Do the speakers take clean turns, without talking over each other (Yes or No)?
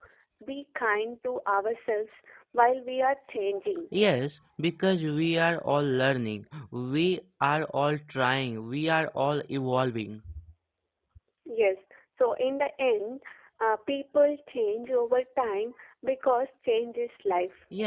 Yes